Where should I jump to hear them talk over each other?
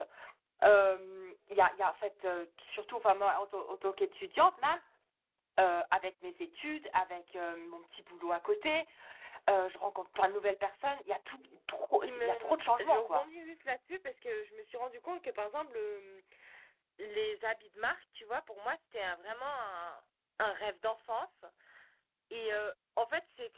12.0 s

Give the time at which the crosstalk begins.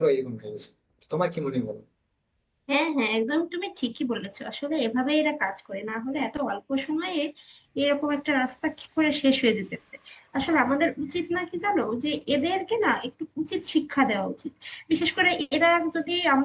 none

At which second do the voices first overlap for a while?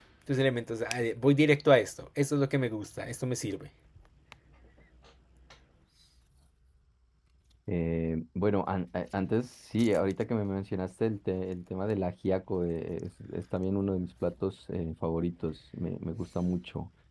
none

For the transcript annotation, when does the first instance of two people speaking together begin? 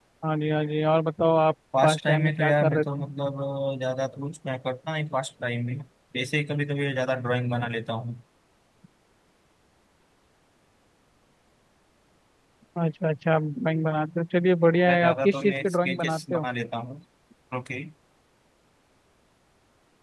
1.8 s

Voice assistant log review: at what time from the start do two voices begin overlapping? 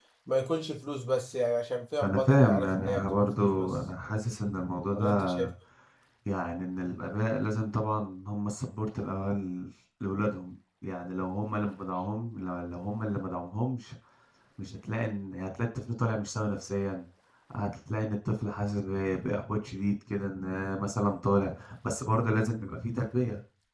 2.0 s

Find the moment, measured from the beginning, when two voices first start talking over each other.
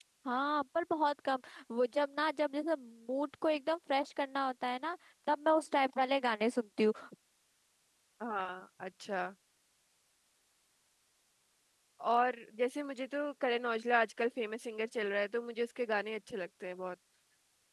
none

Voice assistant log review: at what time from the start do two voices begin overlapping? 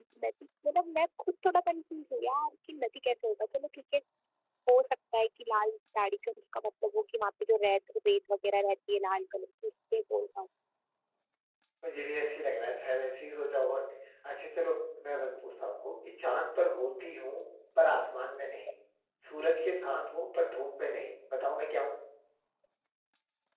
none

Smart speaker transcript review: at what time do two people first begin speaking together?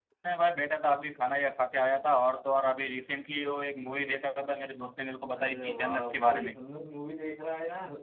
5.3 s

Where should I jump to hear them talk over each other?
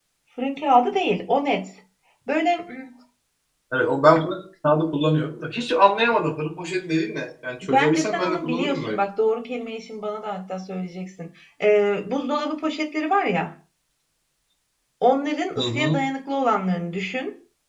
7.6 s

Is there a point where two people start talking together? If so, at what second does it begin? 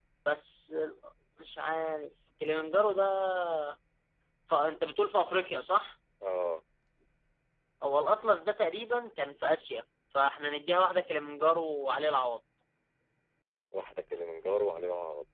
none

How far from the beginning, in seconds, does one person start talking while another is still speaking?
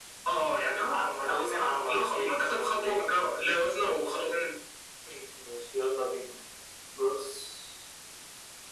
0.7 s

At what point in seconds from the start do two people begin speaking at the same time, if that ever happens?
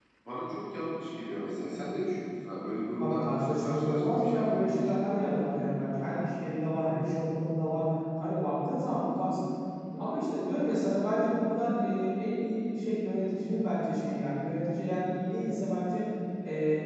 3.0 s

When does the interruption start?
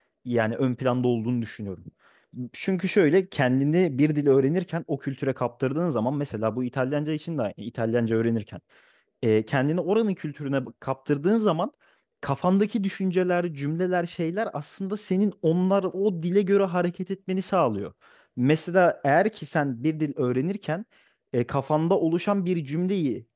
none

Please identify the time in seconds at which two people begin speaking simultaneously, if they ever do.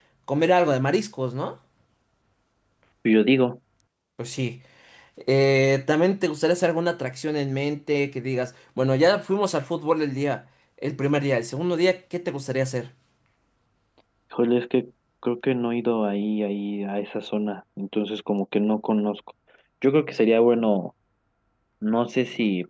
none

